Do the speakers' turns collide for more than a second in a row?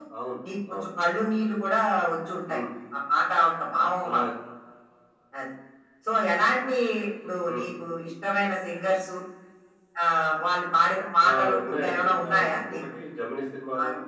Yes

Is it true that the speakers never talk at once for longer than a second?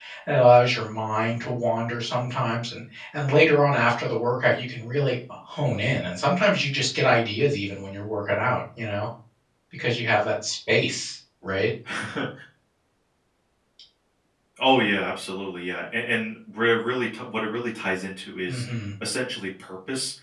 Yes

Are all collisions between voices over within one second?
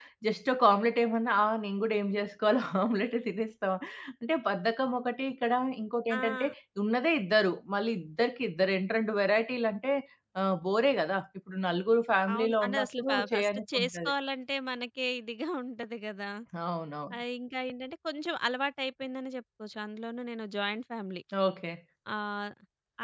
No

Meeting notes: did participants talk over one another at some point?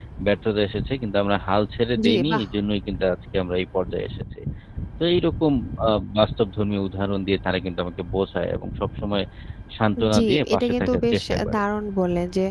Yes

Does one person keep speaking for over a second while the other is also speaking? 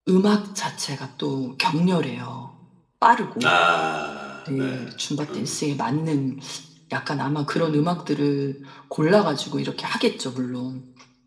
No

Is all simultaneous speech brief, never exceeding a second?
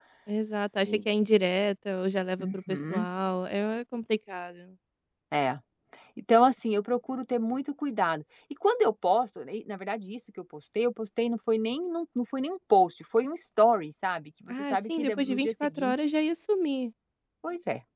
No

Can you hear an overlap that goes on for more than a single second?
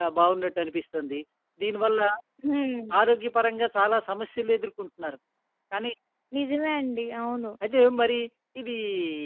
No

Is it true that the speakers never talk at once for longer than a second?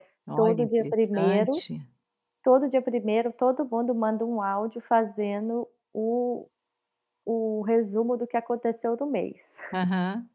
No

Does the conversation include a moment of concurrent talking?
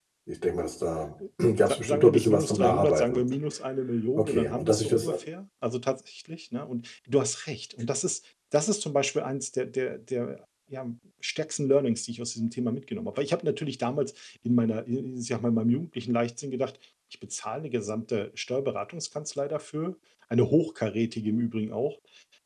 Yes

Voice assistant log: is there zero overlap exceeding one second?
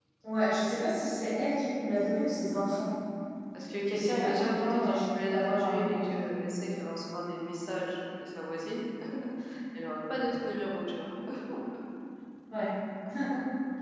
No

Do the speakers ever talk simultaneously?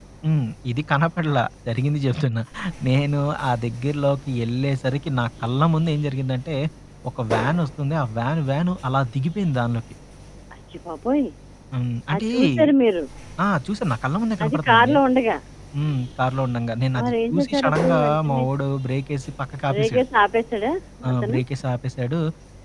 Yes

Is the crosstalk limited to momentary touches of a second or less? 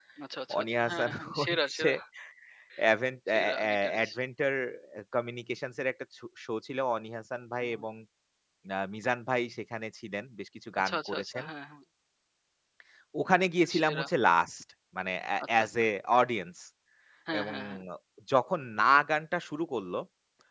No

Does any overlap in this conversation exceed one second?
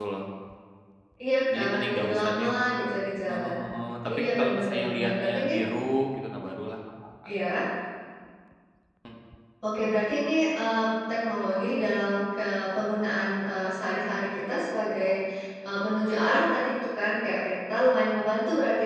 Yes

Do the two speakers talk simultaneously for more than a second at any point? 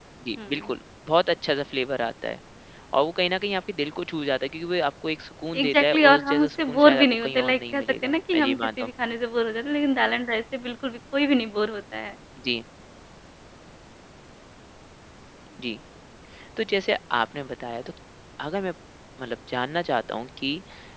Yes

